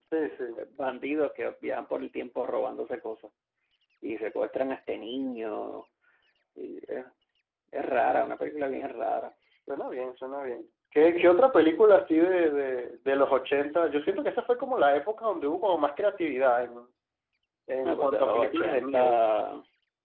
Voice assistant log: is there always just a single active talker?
No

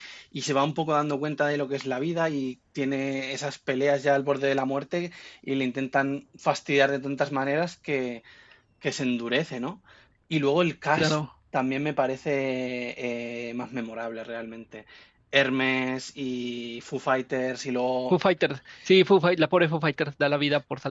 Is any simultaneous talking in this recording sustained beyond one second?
No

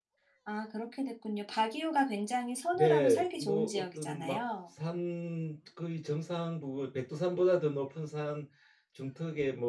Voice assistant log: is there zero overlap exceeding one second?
No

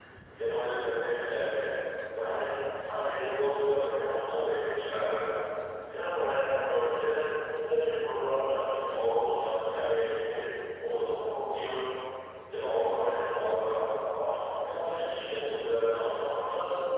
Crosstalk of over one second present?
No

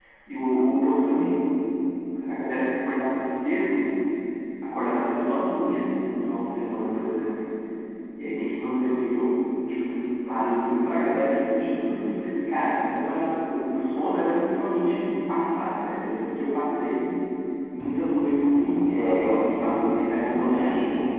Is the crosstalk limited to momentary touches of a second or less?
No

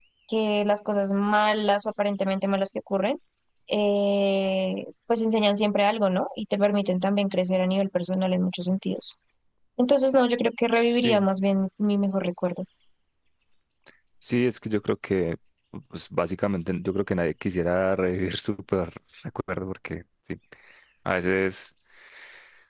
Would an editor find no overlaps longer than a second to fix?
Yes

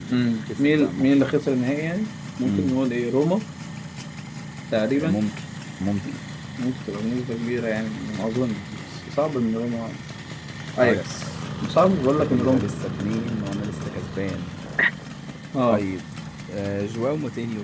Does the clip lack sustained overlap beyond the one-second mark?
No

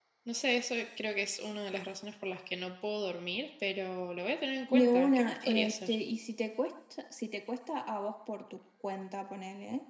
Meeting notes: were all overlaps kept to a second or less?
No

